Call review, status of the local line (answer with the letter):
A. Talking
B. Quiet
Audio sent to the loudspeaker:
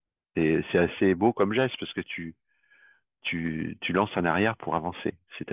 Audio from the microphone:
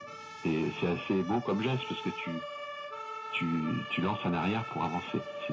B